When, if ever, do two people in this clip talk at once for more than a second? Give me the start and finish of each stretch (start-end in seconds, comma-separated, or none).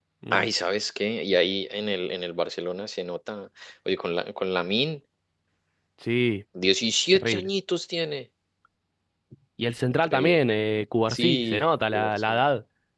11.1-12.4